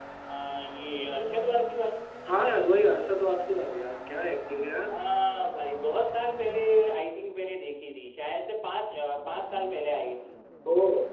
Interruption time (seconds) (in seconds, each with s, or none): none